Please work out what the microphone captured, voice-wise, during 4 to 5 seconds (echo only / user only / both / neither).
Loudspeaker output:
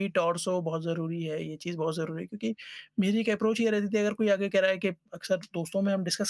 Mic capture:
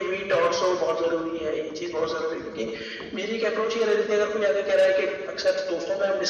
echo only